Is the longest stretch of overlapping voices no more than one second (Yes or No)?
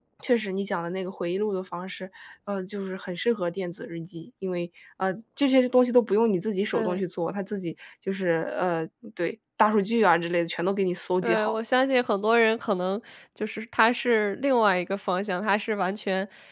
Yes